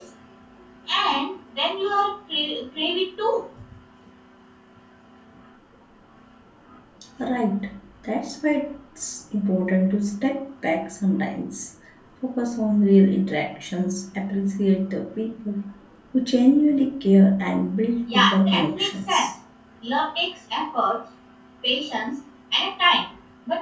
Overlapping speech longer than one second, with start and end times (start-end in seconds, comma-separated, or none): 18.1-19.3